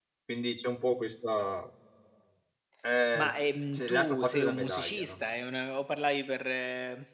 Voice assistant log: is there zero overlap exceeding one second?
No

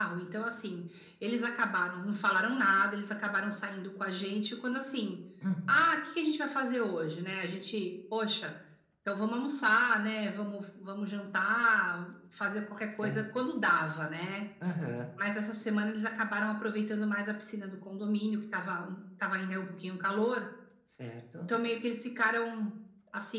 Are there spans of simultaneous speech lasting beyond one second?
No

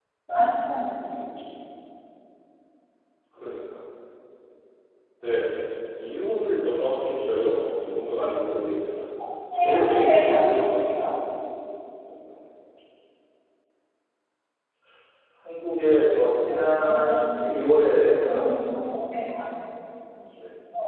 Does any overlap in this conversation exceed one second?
Yes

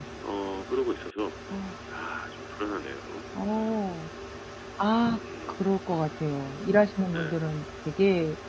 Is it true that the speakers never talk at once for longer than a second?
Yes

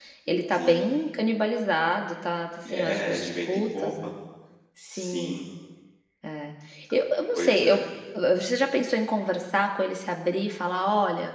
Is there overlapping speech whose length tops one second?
Yes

